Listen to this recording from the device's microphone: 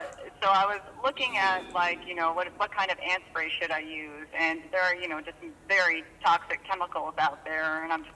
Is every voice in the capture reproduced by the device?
No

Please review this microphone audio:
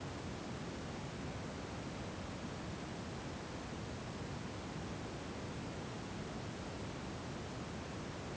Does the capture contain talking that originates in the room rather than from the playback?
No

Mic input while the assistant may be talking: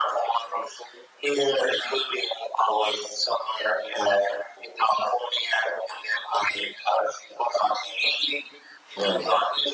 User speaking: Yes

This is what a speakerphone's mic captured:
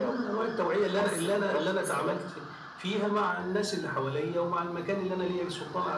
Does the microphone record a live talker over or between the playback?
No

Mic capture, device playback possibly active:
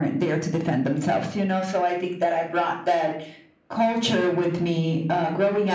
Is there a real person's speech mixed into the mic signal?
No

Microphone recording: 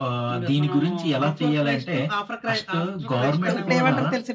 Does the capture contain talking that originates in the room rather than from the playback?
Yes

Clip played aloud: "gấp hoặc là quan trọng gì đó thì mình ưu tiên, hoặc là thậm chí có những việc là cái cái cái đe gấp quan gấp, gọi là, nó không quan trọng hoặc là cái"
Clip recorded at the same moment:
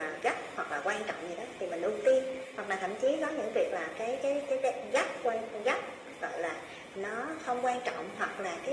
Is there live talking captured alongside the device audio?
No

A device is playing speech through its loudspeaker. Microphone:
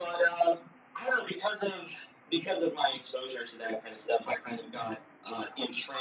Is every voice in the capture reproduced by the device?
Yes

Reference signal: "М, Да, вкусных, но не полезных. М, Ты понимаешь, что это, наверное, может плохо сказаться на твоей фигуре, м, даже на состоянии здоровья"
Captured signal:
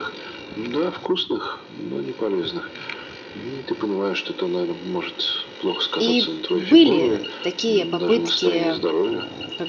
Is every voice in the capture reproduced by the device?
No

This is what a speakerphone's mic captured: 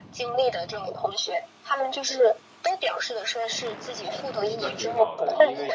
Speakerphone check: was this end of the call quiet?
No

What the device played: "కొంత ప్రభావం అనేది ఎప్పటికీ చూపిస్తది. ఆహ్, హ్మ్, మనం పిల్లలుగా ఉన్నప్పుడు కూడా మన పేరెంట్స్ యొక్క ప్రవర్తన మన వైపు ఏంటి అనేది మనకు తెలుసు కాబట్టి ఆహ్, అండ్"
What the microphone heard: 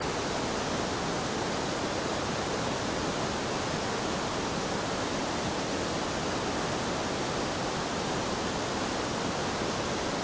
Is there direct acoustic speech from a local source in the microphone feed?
No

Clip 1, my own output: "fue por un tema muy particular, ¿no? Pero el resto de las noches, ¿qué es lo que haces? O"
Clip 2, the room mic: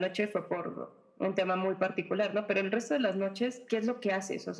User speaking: No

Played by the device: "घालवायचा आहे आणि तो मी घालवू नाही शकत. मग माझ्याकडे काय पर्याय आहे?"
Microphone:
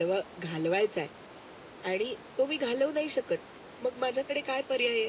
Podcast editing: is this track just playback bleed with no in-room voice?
Yes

